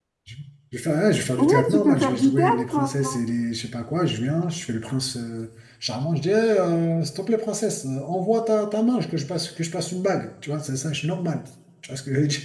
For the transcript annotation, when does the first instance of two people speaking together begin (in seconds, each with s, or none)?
1.4 s